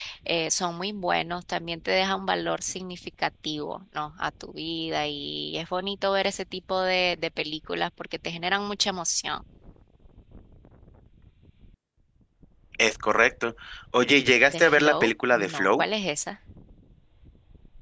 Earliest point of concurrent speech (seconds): 14.5 s

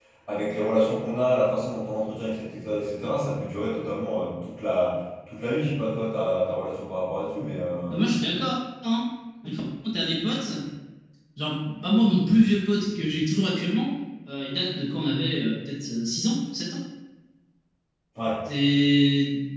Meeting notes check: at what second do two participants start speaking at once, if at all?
none

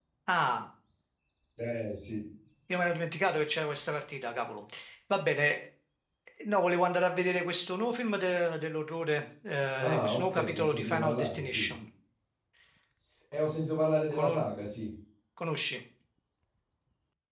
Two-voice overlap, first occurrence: 9.8 s

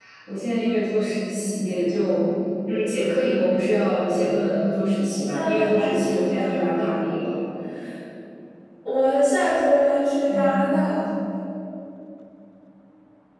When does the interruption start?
5.3 s

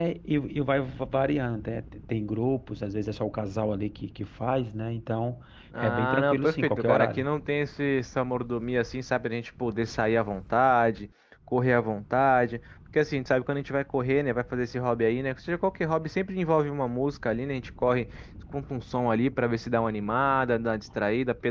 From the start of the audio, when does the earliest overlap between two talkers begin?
5.7 s

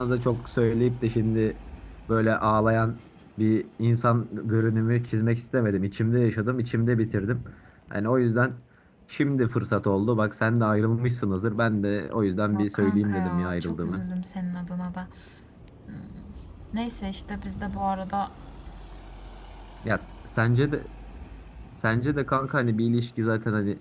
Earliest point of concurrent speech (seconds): 12.5 s

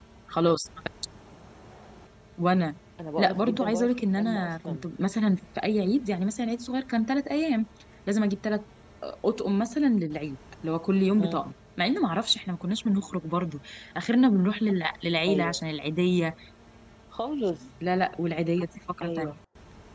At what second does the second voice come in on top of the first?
3.2 s

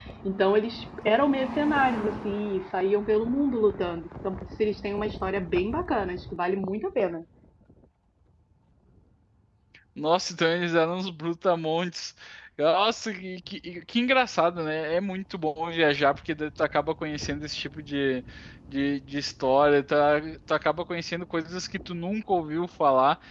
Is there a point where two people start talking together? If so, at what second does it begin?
none

